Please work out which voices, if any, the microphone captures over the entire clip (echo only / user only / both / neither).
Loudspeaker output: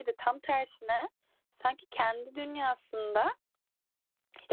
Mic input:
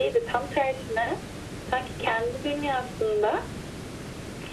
echo only